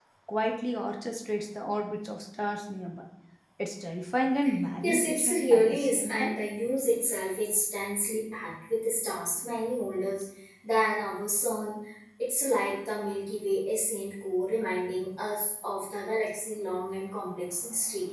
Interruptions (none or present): present